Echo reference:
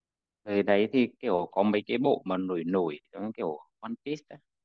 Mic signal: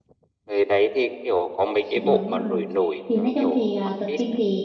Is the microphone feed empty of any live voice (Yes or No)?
No